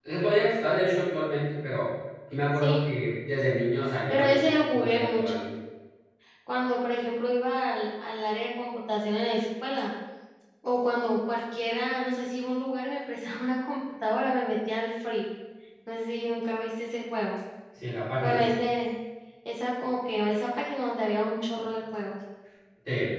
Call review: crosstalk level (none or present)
present